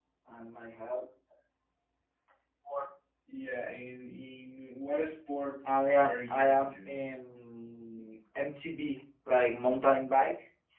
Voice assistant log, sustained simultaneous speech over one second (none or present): present